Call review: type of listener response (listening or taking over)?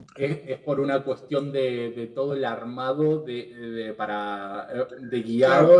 taking over